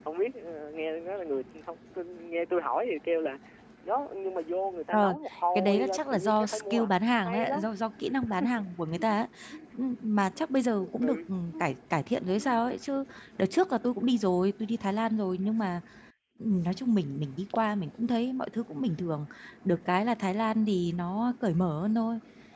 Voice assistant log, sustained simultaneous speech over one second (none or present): present